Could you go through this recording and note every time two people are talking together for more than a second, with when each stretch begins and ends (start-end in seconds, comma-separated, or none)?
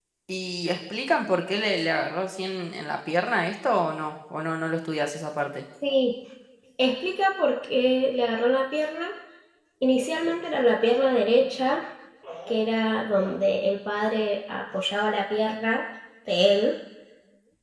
none